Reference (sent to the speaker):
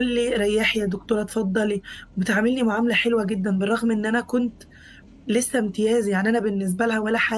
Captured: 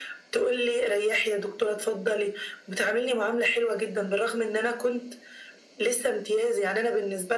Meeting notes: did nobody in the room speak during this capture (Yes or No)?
Yes